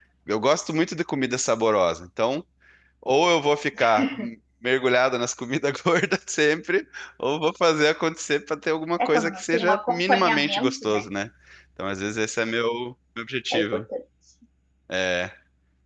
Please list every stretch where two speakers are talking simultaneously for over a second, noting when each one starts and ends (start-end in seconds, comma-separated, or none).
9.1-11.1